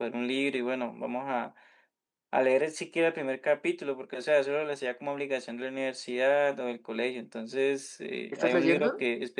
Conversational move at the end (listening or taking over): listening